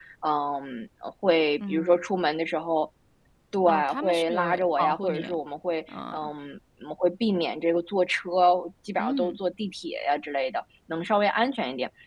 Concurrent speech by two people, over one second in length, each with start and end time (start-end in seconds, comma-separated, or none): 3.6-5.2